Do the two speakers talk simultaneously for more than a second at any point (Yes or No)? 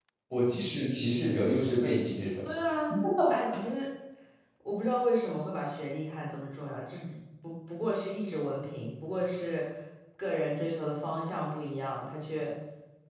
No